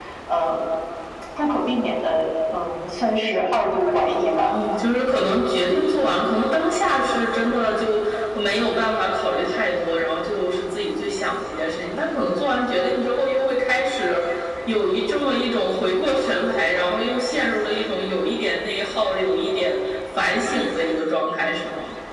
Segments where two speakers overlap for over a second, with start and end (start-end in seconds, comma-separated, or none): none